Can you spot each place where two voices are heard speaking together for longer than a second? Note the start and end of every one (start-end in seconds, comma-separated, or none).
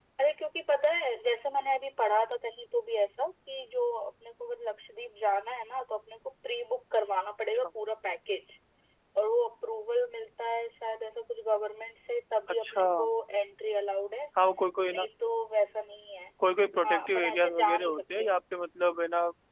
16.8-18.3